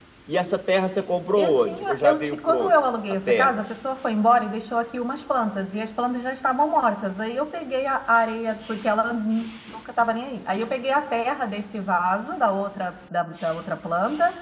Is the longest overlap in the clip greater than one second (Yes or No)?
Yes